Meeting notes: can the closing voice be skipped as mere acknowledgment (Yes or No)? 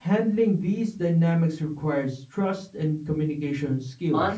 No